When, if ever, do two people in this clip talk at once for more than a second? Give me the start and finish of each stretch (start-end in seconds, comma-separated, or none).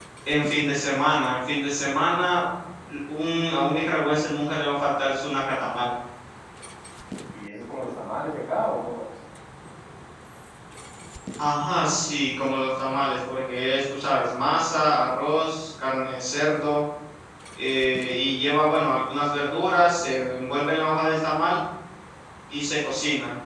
none